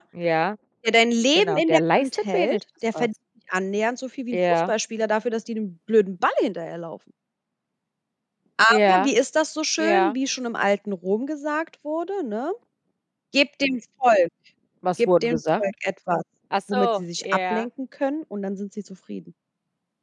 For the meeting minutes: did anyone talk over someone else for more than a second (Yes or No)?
Yes